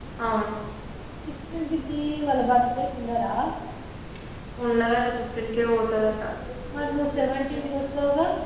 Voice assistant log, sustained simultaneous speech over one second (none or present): none